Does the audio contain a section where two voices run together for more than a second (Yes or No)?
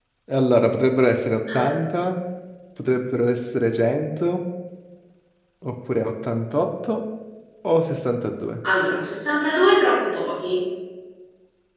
No